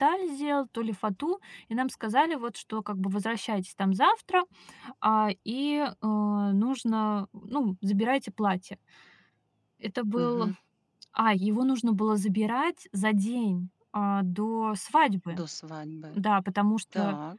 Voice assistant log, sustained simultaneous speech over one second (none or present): none